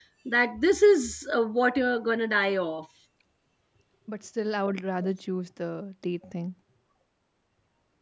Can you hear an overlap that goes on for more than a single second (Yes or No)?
No